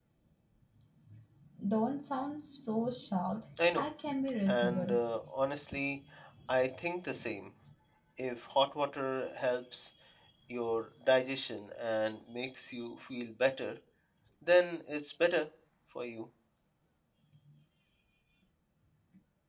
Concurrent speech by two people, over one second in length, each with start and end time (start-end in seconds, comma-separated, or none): none